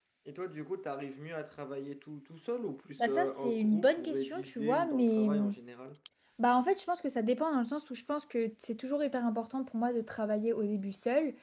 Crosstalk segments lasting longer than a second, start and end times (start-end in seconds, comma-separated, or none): 3.0-5.5